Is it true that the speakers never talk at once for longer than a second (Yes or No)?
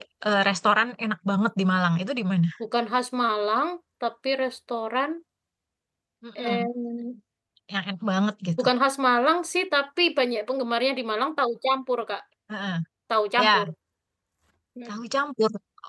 Yes